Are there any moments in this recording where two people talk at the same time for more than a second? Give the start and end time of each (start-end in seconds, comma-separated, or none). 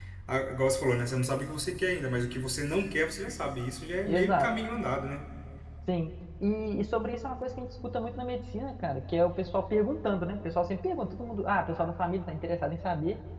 none